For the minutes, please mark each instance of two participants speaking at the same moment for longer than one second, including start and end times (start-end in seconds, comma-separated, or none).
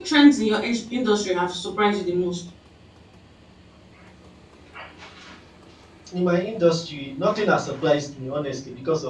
none